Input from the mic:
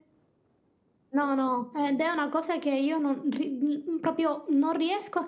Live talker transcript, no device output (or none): none